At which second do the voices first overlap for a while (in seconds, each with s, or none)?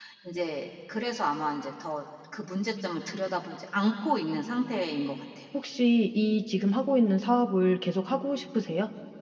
none